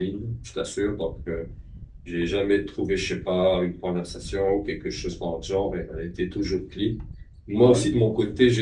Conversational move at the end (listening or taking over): listening